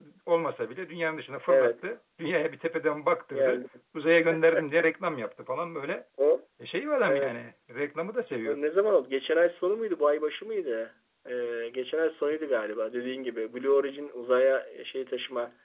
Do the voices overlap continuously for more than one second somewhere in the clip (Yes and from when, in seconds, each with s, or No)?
No